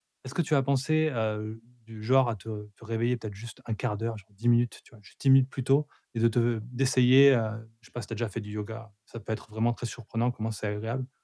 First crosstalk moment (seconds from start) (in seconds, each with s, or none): none